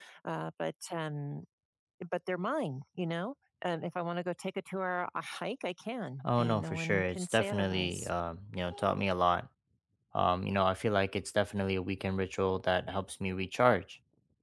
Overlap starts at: 6 s

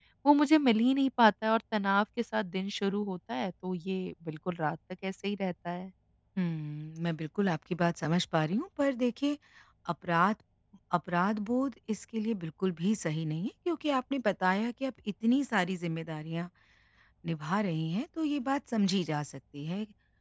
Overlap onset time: none

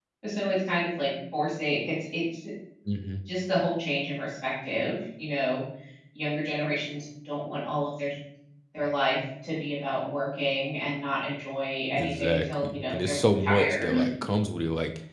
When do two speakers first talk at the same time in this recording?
12 s

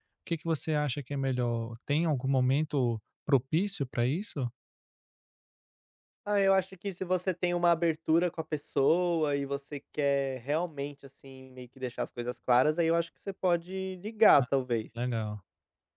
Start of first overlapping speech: none

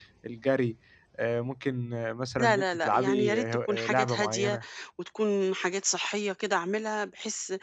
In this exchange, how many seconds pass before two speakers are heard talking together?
2 s

